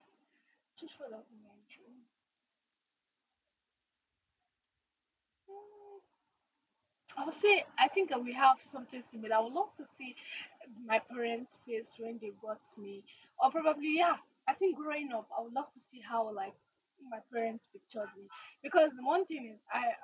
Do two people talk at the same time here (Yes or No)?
No